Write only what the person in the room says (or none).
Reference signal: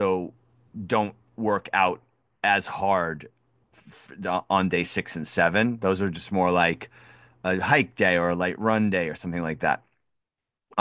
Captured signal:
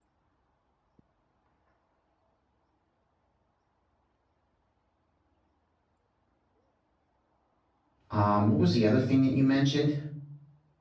um what was the other thing that you mentioned?